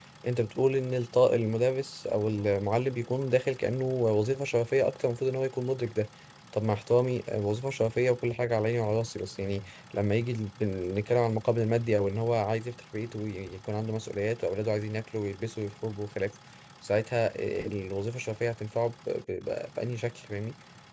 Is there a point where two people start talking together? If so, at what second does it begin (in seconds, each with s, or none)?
none